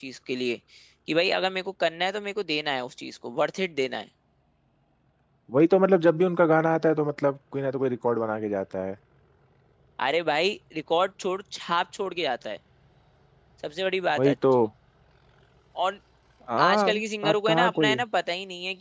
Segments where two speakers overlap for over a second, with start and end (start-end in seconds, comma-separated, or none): 16.6-18.0